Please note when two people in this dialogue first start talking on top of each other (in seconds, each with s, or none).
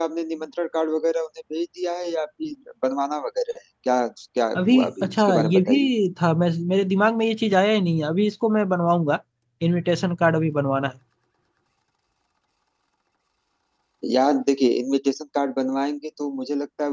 4.5 s